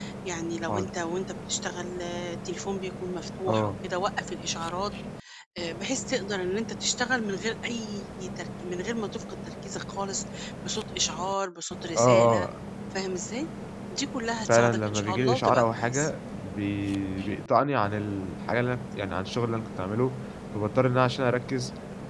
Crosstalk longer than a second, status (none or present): present